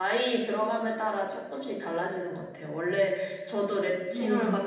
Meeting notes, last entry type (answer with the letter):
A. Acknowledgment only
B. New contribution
A